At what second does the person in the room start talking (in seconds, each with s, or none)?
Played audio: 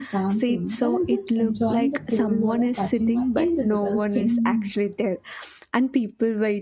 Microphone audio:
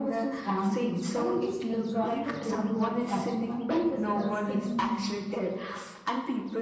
none